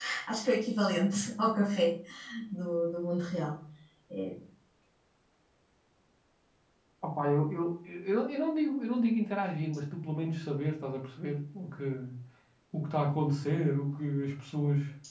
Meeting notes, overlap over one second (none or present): none